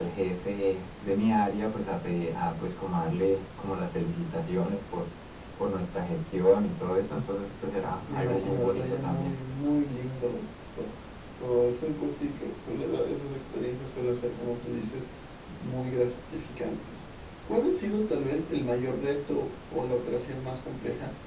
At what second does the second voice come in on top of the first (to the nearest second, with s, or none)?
8 s